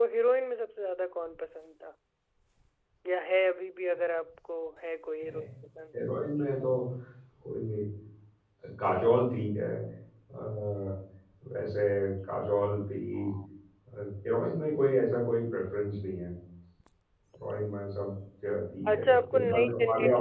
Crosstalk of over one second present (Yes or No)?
Yes